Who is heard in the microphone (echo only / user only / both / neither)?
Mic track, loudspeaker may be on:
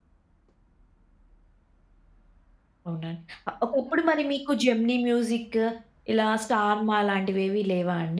user only